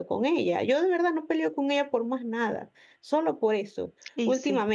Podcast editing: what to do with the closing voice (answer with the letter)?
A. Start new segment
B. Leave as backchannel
B